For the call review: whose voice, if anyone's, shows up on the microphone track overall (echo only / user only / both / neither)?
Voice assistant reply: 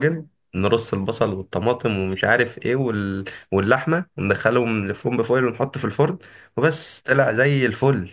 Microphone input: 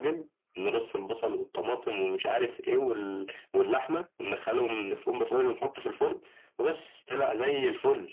echo only